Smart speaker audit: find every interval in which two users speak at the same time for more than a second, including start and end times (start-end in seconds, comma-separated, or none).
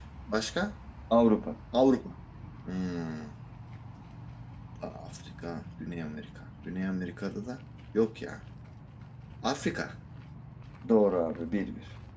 none